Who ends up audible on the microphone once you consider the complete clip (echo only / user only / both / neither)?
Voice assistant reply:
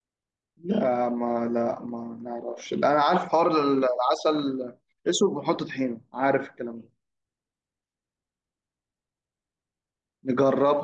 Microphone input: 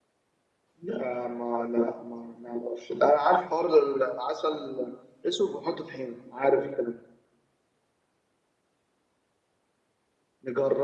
echo only